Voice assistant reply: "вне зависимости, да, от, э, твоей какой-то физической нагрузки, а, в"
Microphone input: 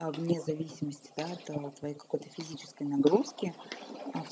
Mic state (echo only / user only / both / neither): echo only